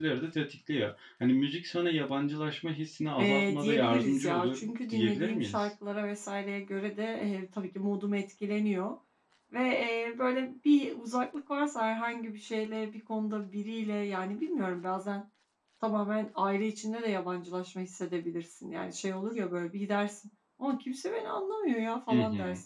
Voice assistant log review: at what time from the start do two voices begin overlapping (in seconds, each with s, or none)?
3.2 s